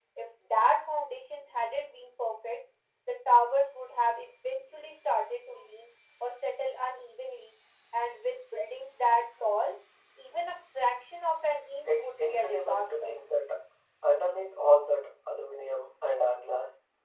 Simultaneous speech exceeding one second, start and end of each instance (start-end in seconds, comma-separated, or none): 11.9-13.1